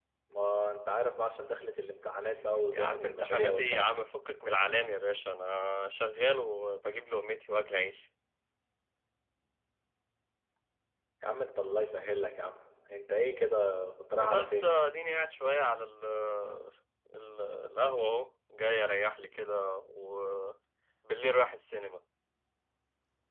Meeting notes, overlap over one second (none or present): present